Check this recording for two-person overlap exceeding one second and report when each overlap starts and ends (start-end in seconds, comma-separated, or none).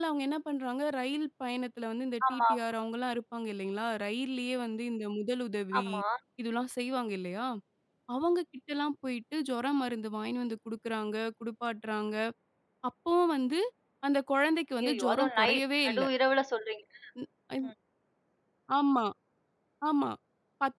14.8-16.0